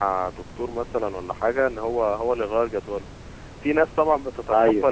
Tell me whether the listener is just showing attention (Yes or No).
Yes